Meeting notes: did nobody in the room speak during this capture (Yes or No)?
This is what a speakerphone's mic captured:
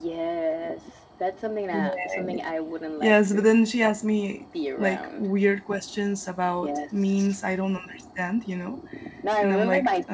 No